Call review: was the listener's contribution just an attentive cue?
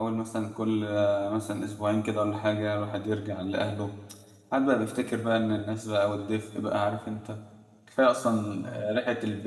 Yes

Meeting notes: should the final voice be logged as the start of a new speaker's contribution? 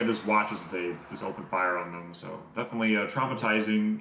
No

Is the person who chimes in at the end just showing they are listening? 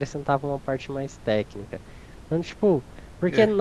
Yes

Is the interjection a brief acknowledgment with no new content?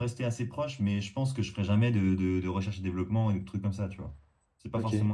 Yes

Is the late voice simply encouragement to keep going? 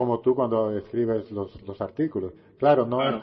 Yes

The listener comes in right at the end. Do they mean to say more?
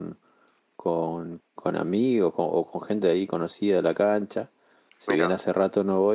No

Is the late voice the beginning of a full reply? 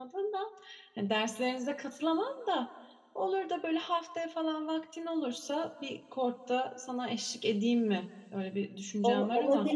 Yes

